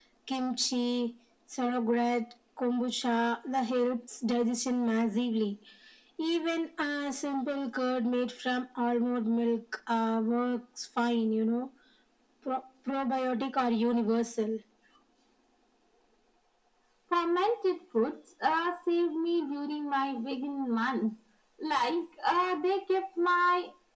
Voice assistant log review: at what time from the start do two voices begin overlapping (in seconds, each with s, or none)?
none